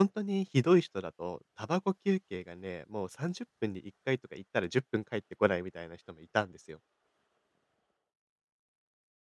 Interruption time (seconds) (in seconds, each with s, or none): none